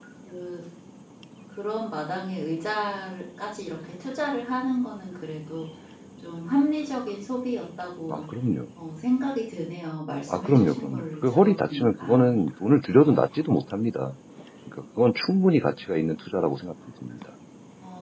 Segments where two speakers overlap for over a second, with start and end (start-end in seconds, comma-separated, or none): 10.3-12.3